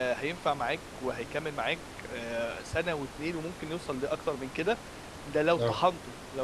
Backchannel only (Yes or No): Yes